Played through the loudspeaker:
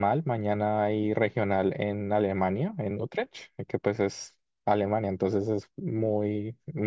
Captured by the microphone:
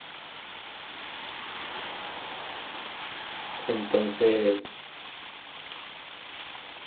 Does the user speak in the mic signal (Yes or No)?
Yes